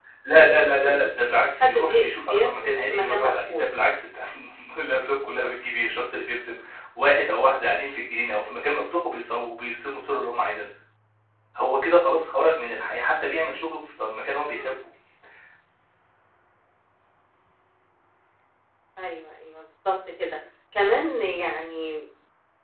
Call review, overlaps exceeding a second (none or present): present